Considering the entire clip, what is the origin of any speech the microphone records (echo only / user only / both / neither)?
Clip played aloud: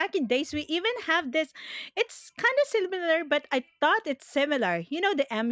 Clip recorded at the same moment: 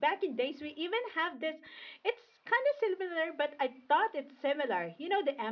echo only